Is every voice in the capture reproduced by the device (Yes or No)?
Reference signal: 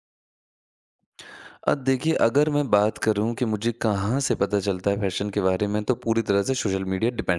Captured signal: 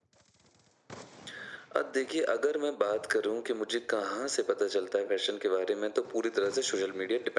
Yes